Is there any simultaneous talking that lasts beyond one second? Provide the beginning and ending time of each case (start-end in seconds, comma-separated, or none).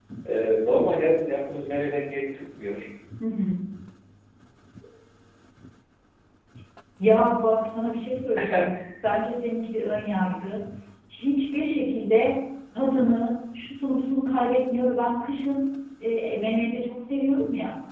none